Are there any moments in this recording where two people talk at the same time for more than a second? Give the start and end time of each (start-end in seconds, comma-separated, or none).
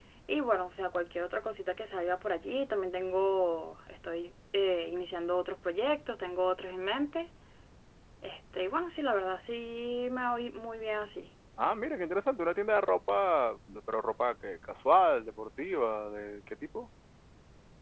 none